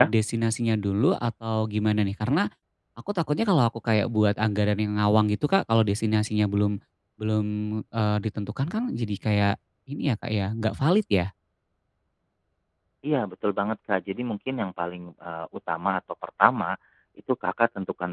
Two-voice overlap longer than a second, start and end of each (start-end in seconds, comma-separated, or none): none